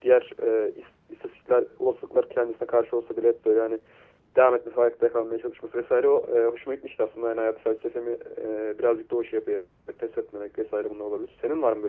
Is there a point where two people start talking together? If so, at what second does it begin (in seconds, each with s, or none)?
none